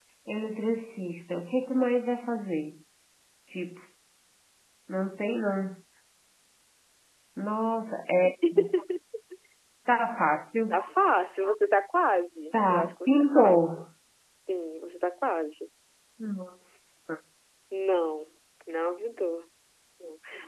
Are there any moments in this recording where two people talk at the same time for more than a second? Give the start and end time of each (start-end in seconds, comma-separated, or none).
12.5-13.9